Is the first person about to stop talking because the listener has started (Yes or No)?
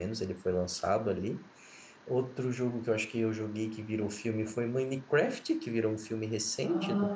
Yes